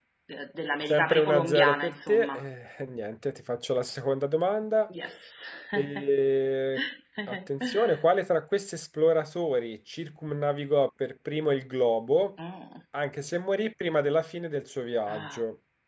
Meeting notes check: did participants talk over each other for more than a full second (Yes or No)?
Yes